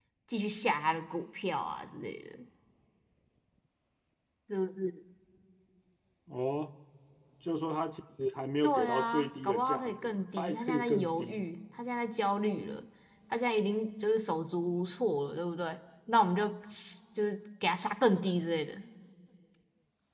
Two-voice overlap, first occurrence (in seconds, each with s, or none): 8.6 s